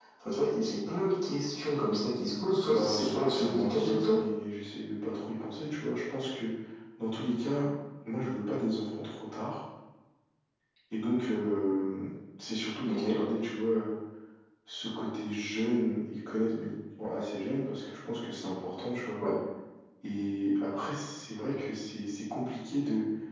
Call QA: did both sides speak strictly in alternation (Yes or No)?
No